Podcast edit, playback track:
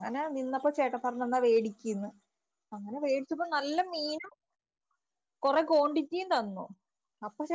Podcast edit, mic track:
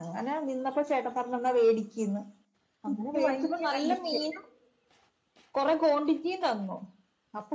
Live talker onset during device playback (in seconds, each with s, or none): 2.9 s